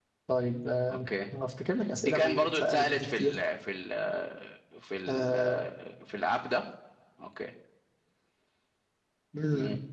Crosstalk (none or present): present